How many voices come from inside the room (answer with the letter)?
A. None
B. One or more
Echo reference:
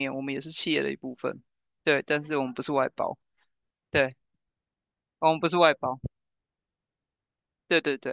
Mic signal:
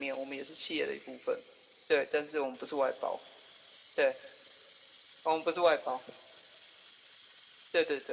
A